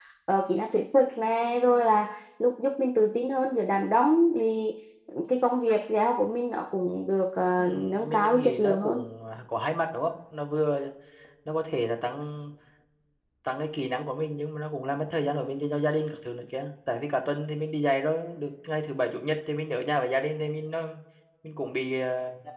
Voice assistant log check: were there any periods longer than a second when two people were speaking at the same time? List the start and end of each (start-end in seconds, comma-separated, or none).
7.6-9.0